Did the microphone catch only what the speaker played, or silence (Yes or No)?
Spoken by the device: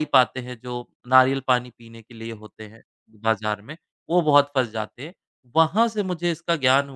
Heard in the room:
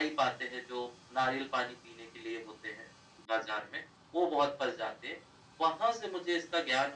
Yes